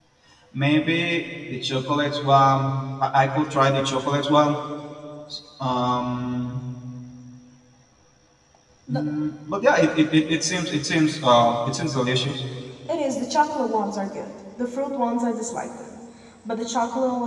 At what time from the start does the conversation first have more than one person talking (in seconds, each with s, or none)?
none